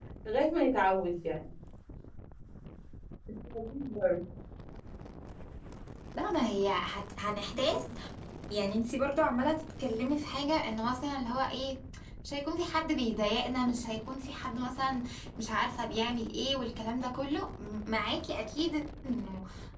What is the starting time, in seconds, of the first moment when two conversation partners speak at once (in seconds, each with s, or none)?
none